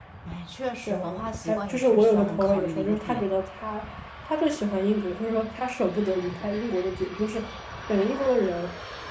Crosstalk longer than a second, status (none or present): present